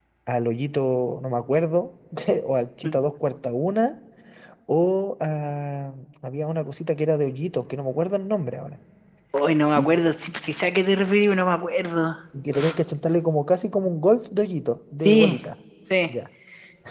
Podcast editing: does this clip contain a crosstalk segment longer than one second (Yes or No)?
No